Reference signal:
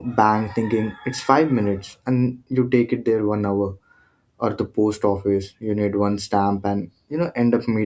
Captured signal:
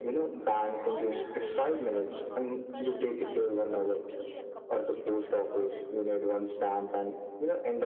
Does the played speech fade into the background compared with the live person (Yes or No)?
No